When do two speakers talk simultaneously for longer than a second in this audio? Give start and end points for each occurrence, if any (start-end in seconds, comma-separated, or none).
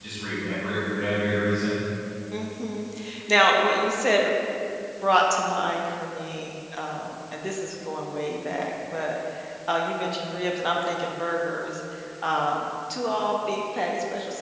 none